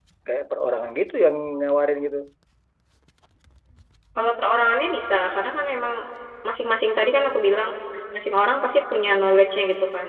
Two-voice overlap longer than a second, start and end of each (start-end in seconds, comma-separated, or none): none